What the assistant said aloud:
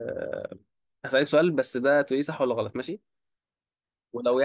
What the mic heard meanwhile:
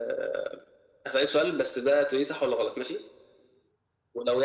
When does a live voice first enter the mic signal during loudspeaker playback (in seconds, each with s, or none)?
none